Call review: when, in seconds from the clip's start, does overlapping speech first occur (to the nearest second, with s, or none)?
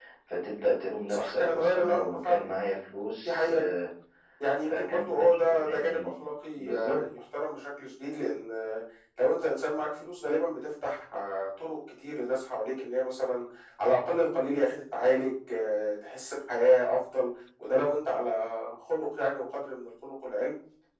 1 s